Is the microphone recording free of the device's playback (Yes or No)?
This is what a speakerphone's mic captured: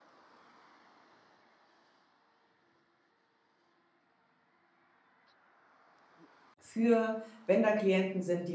Yes